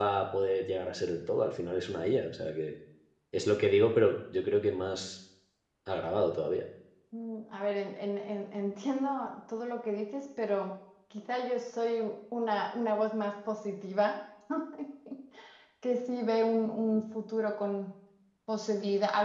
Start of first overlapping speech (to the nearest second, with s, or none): none